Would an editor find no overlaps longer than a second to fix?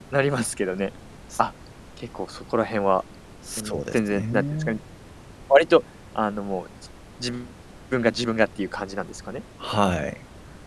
No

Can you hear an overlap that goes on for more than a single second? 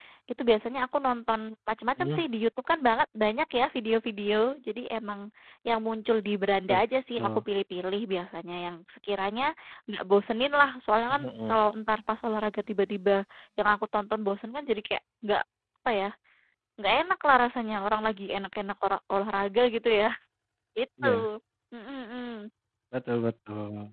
No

